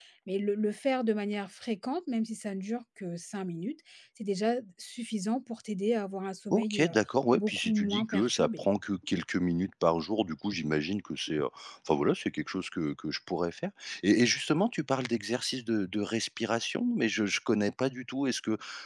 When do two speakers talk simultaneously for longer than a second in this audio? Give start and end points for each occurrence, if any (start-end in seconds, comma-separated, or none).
7.3-8.6